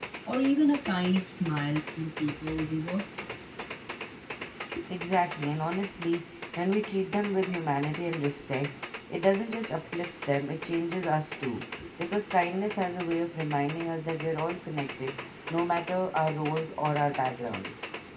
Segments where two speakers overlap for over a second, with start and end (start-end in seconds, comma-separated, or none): none